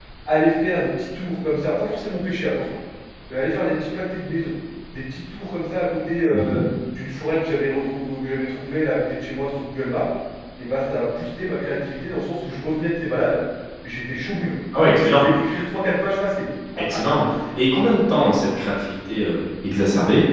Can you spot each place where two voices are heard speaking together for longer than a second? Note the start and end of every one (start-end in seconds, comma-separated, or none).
none